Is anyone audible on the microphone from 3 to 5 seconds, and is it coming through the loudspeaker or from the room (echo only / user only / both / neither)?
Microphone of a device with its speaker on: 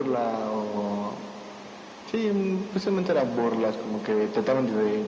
echo only